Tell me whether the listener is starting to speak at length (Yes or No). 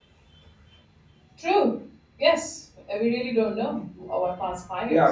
Yes